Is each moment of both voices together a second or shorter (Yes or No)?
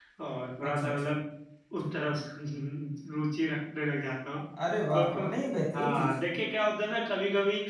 Yes